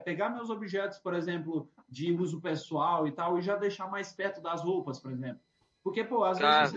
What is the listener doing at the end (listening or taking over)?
listening